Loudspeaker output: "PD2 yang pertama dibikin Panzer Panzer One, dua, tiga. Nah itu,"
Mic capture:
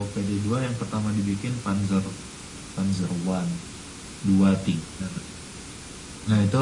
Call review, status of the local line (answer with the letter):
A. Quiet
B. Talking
A